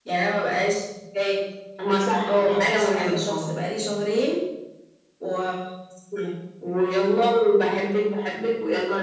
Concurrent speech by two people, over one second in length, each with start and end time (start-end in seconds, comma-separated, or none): 2.3-3.5